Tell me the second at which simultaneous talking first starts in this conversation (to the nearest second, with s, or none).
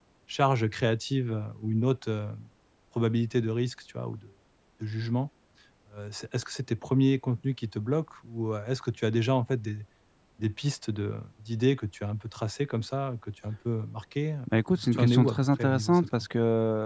15 s